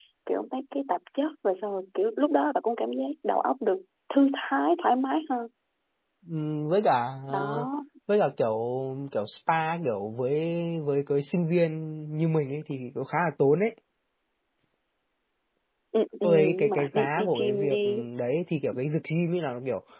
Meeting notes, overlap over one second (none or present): present